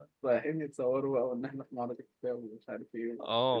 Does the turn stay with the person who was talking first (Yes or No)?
No